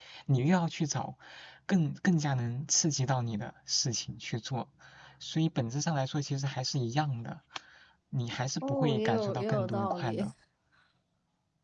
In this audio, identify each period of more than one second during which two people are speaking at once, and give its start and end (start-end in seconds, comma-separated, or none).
8.6-10.2